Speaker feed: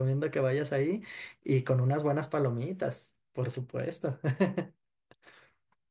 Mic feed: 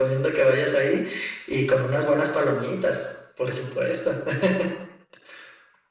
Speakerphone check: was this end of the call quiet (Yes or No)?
Yes